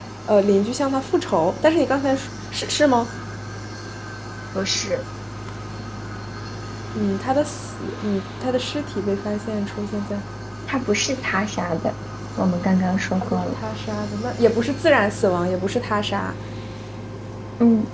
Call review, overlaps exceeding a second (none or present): none